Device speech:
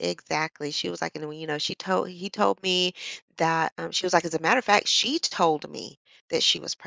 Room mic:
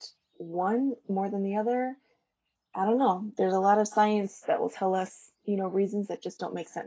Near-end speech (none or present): present